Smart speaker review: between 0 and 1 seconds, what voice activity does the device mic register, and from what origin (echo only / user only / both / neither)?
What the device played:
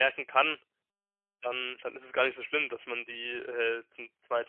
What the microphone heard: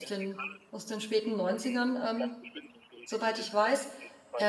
both